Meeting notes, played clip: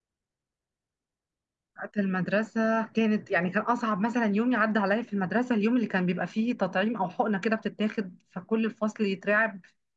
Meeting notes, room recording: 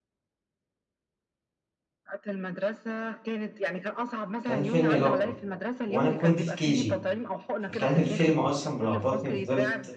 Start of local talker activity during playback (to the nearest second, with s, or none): 4 s